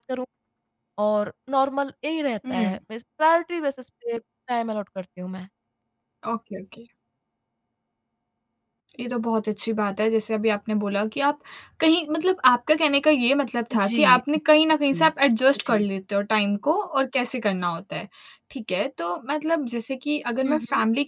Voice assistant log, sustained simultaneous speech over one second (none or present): none